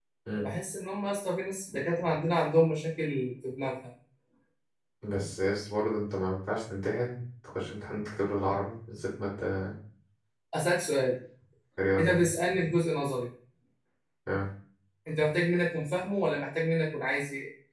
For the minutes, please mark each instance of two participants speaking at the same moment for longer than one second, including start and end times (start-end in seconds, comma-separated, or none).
none